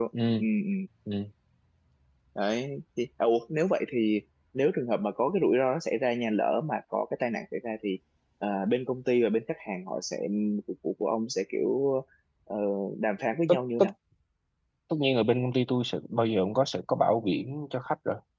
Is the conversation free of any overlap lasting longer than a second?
Yes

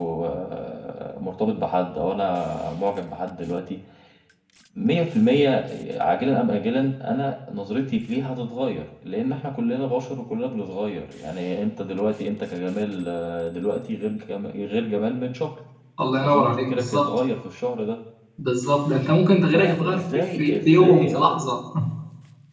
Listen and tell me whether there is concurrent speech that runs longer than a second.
Yes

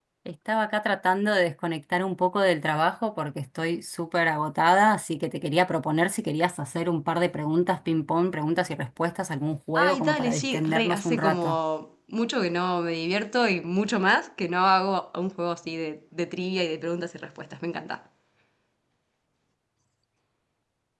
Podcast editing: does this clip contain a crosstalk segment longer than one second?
Yes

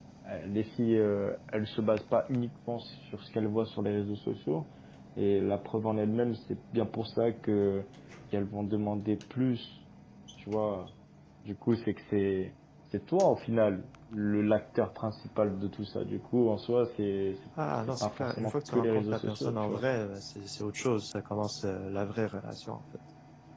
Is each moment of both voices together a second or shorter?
No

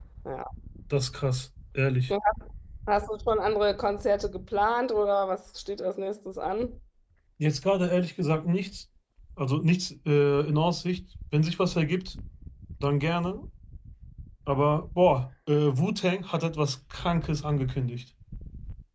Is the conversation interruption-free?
Yes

